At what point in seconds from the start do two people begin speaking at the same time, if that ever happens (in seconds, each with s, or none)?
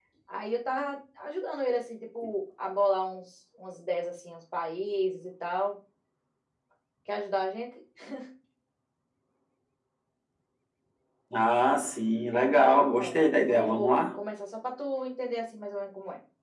12.5 s